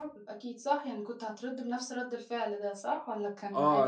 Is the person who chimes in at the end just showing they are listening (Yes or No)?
No